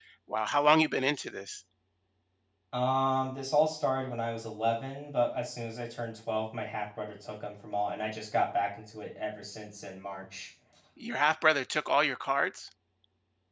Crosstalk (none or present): none